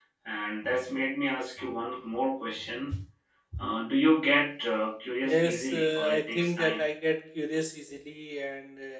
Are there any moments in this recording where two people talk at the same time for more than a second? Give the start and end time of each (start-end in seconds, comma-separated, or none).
5.2-6.9